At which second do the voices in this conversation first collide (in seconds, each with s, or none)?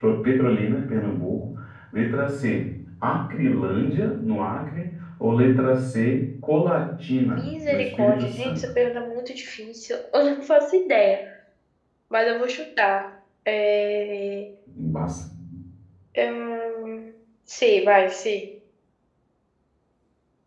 7.2 s